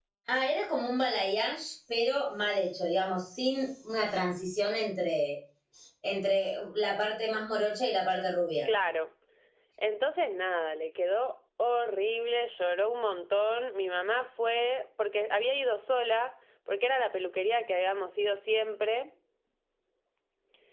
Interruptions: none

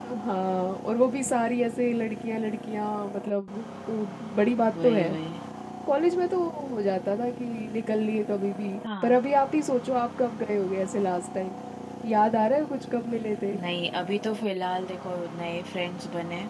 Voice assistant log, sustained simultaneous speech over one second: none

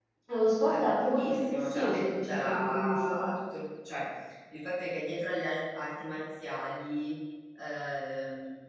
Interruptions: present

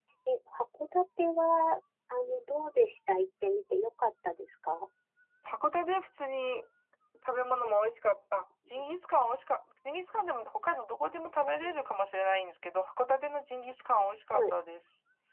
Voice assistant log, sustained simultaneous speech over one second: none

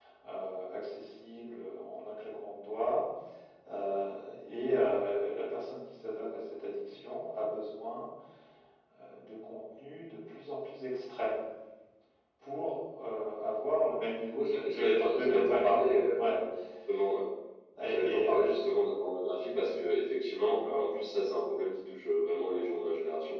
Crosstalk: present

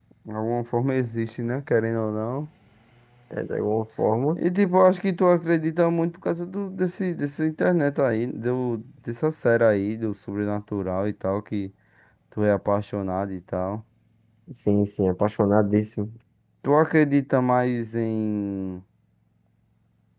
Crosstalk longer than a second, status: none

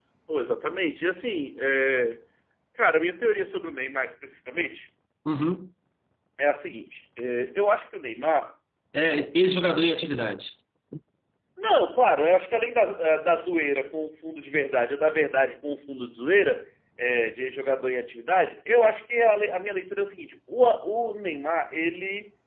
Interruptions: none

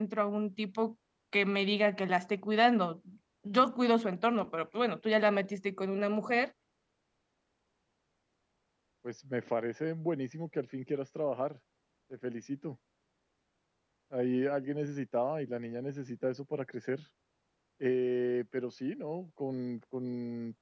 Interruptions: none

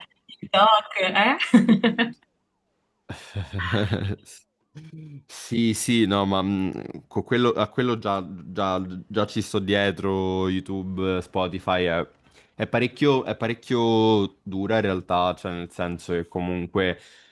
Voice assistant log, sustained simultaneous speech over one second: none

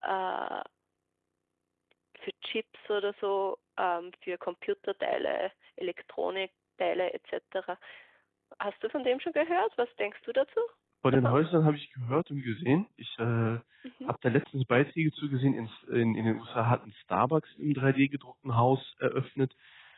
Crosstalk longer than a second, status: none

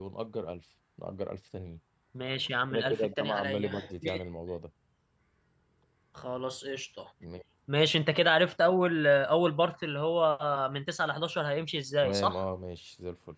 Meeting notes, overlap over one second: present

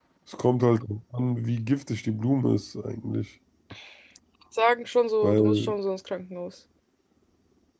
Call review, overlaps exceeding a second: none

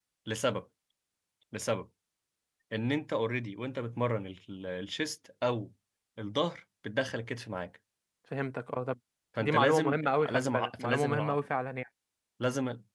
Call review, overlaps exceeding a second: present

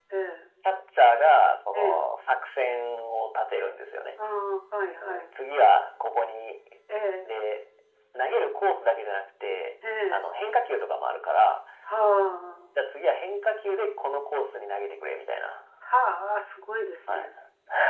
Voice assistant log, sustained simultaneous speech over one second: none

